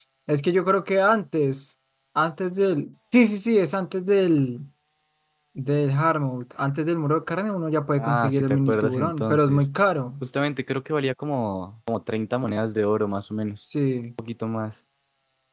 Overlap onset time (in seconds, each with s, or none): 8.0 s